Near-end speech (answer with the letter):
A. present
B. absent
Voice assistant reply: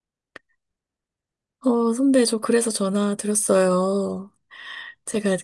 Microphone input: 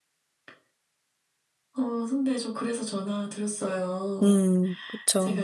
A